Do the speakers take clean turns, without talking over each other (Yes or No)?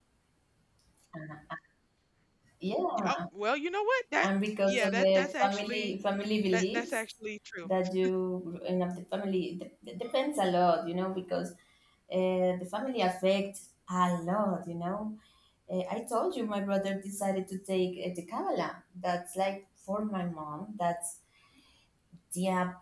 No